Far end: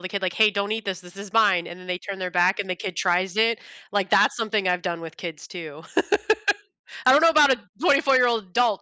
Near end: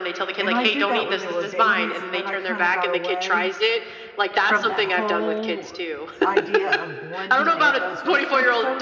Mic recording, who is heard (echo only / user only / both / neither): both